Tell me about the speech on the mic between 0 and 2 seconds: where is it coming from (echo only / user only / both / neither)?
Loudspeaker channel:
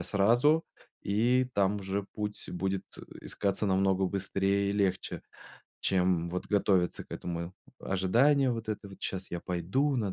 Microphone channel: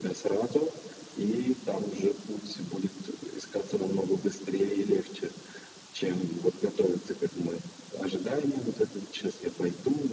echo only